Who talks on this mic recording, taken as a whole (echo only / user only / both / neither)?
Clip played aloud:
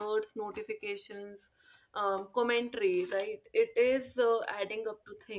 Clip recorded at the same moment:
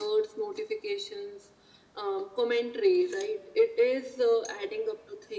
echo only